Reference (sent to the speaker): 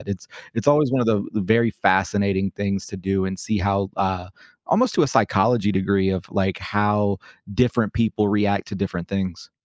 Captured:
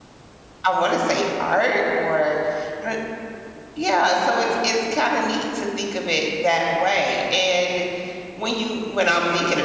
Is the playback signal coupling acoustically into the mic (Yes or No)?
No